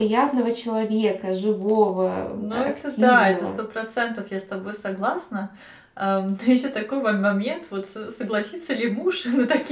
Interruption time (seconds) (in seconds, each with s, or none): 2.3 s